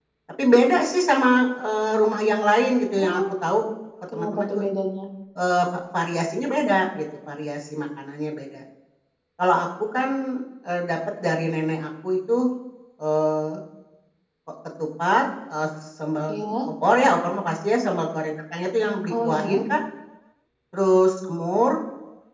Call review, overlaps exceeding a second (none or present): none